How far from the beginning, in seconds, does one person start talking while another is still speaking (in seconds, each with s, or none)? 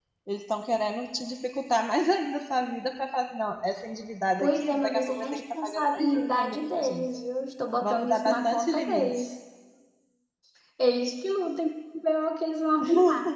4.4 s